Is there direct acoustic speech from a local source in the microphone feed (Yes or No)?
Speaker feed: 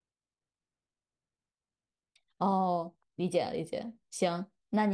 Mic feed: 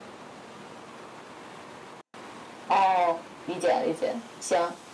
No